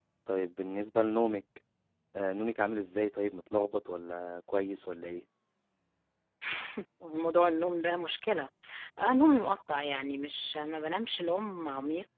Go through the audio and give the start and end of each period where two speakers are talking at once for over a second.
none

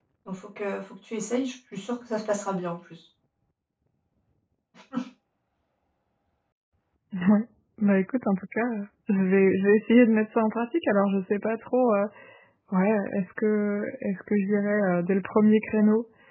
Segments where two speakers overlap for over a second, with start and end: none

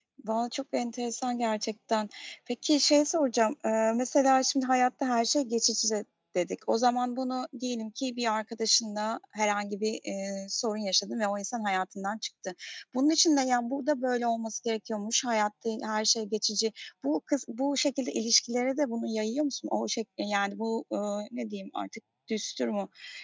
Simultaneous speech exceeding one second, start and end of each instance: none

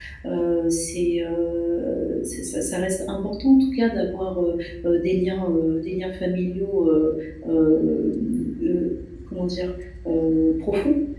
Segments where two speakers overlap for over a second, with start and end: none

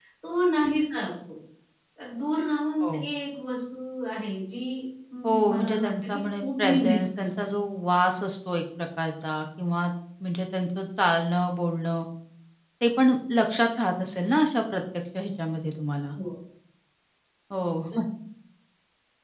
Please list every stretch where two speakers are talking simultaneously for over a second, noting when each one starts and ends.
5.2-7.3

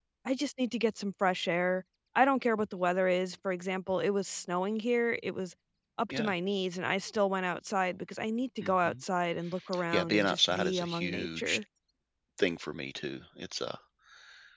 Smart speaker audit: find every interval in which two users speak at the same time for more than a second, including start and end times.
9.9-11.6

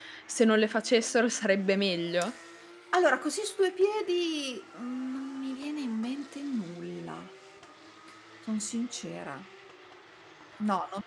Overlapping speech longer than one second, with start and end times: none

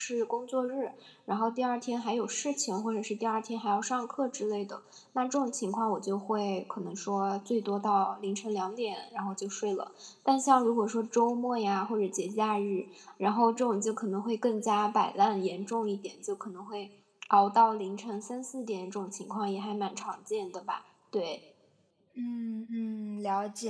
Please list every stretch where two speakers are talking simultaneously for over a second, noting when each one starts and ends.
none

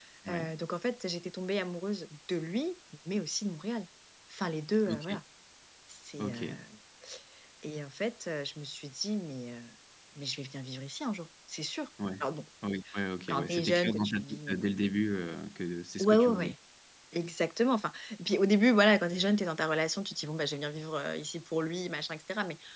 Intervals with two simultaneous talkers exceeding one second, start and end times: 13.3-14.6

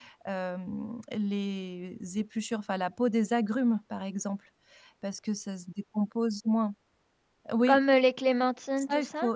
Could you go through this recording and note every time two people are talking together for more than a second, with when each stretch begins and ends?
none

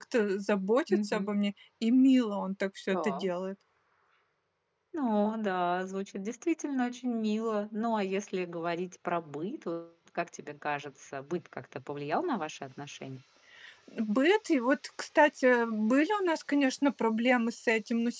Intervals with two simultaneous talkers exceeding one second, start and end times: none

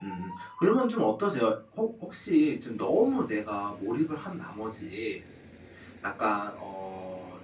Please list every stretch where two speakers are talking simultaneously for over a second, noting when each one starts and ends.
none

